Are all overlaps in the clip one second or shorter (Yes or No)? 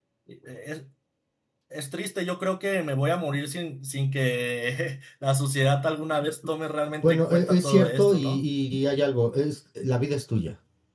No